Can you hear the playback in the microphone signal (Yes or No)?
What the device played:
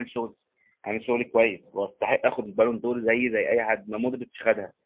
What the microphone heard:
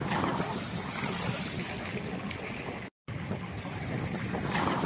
No